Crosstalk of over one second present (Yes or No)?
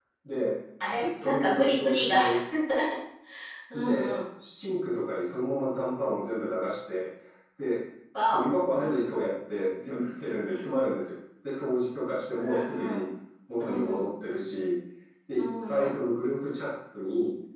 Yes